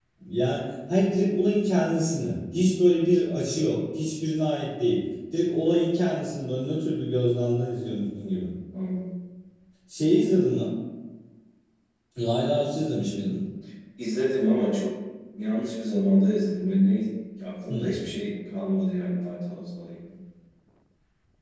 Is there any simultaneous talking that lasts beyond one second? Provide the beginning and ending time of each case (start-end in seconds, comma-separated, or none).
none